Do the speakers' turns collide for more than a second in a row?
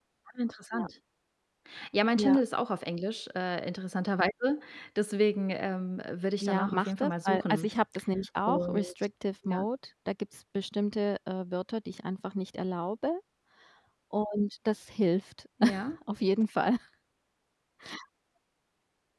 Yes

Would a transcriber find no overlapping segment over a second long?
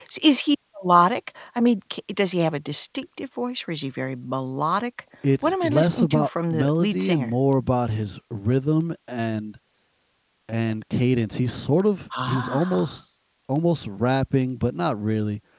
No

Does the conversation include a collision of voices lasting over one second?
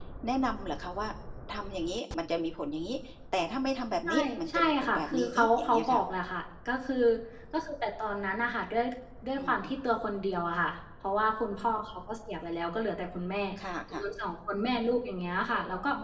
Yes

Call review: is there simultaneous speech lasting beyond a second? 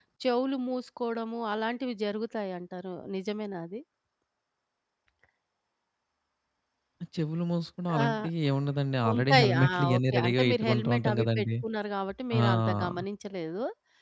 Yes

